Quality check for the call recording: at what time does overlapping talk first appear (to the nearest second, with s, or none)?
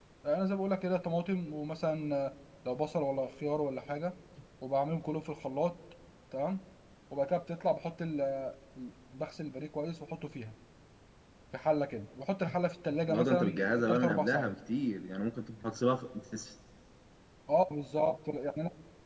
13 s